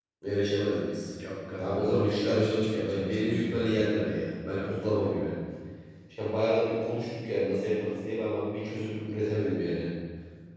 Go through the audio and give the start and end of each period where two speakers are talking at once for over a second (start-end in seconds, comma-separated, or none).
1.6-3.7